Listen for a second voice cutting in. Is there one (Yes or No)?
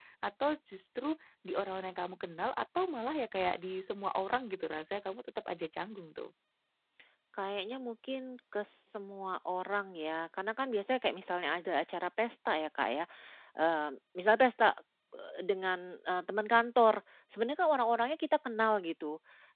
No